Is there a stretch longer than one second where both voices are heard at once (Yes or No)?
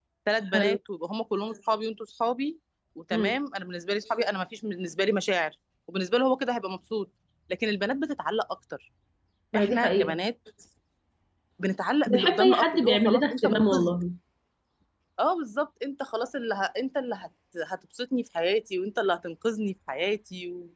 Yes